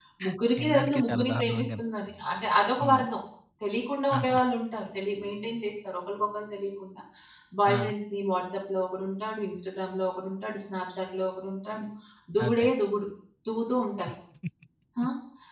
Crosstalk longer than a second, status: present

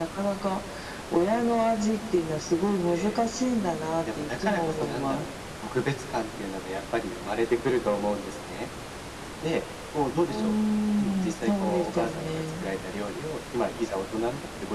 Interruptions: present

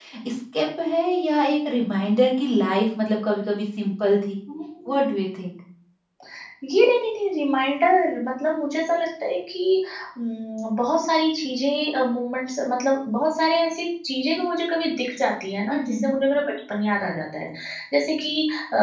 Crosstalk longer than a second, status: none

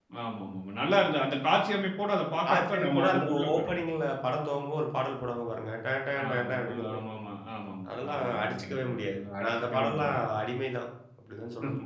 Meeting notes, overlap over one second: present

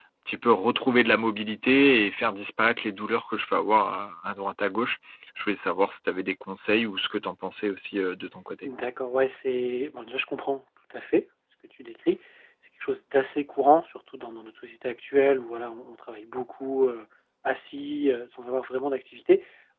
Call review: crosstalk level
none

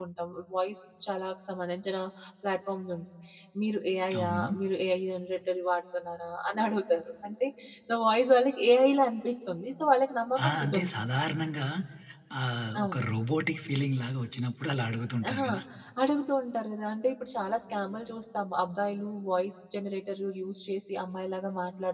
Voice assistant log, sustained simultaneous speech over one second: none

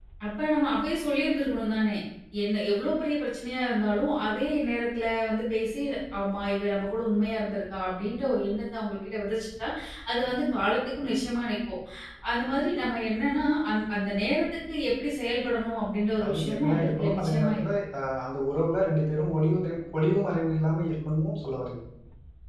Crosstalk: present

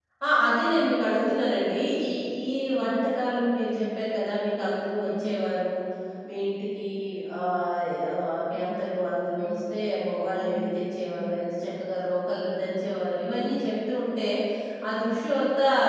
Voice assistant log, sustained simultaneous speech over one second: none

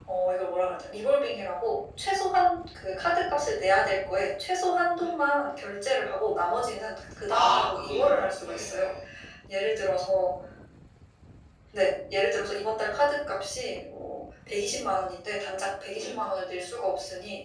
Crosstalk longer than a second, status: present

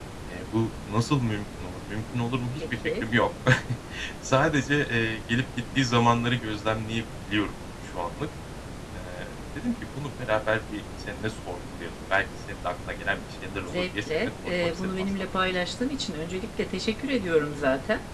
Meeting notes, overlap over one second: present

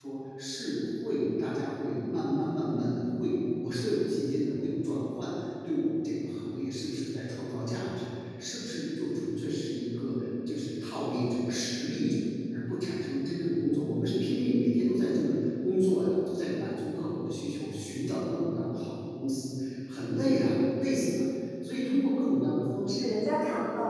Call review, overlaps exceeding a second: none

